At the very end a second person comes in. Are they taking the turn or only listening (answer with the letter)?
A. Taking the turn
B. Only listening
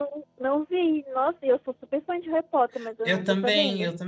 A